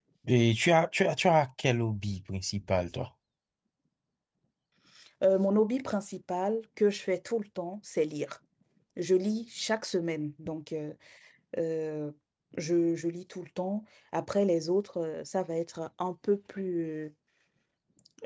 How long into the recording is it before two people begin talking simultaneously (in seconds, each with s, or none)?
none